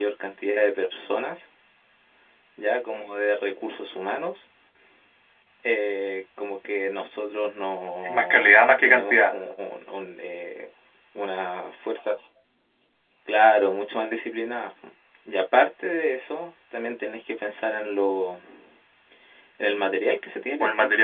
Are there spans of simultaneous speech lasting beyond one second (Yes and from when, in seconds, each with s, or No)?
Yes, from 8.0 s